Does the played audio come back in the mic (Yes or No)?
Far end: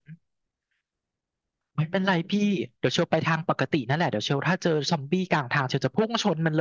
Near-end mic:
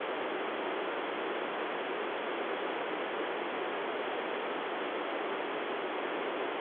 No